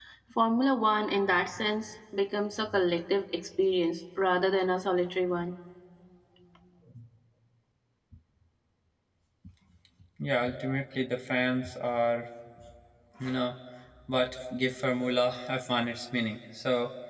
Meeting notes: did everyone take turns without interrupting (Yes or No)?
Yes